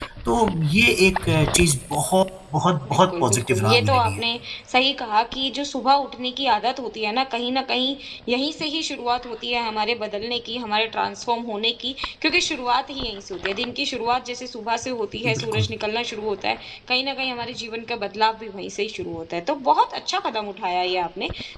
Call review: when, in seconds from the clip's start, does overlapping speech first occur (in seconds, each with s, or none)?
2.9 s